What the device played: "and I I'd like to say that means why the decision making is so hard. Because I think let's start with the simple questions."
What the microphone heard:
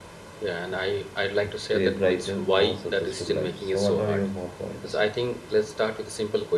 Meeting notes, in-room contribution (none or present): present